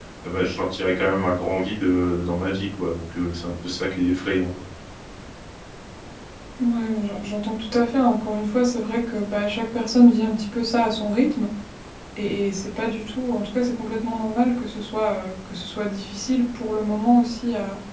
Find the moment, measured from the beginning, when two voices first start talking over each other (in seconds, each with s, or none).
none